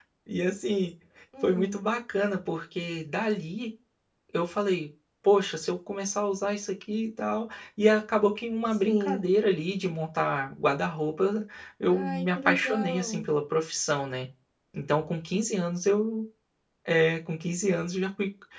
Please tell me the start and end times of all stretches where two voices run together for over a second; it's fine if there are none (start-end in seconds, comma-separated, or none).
11.9-13.2